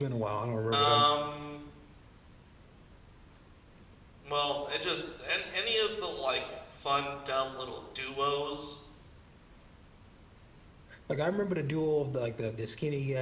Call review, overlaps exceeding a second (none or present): none